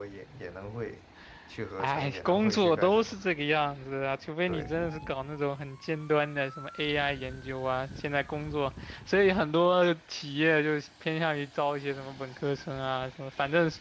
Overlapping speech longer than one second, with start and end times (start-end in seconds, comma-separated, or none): 1.8-3.1